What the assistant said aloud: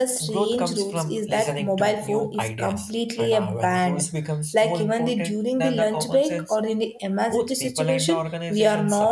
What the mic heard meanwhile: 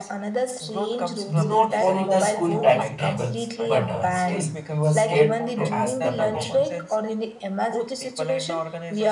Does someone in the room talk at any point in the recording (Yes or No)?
Yes